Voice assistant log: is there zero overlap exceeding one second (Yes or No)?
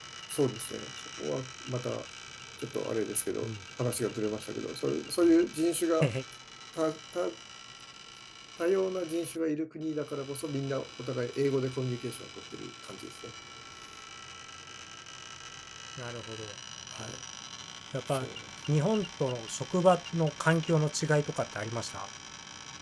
Yes